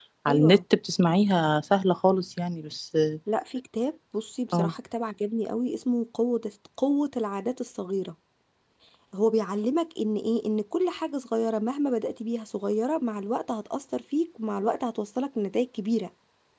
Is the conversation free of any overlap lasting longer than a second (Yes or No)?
Yes